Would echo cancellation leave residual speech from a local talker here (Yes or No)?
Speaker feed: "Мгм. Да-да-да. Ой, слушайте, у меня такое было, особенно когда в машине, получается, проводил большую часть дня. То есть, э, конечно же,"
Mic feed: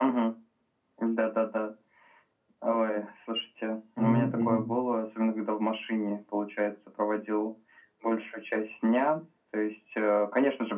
Yes